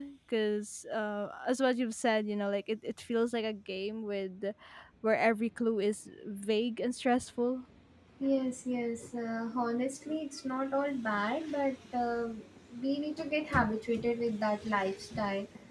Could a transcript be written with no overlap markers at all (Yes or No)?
Yes